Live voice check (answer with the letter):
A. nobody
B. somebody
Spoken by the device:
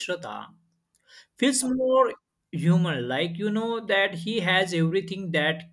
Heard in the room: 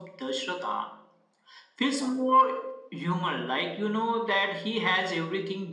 A